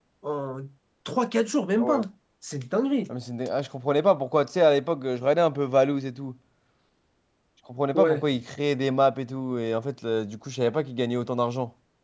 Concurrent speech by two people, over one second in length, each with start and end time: none

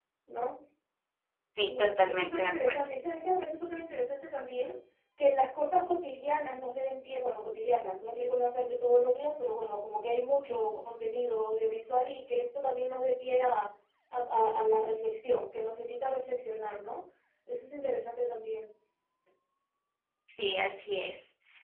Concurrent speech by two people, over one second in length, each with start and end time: 1.7-2.9

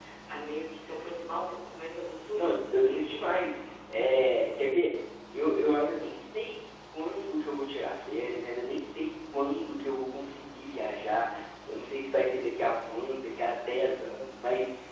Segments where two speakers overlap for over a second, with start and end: none

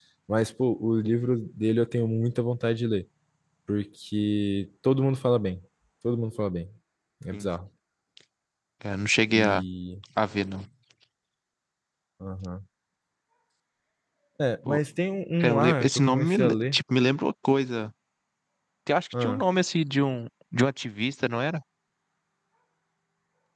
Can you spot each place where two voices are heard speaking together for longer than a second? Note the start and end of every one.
15.4-16.8

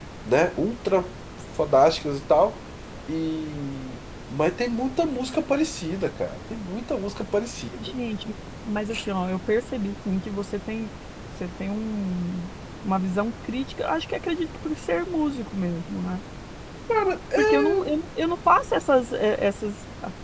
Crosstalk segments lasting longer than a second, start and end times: none

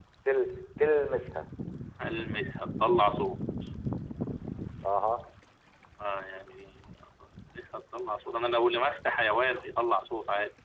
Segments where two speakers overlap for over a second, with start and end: none

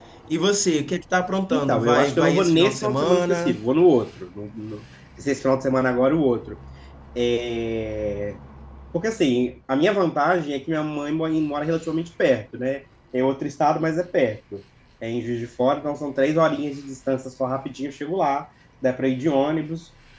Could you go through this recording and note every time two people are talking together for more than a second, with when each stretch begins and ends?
1.5-3.6

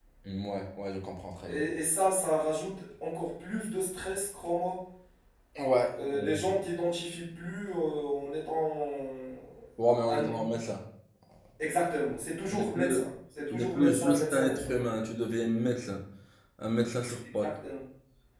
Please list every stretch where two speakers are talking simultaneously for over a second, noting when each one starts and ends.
13.5-14.7

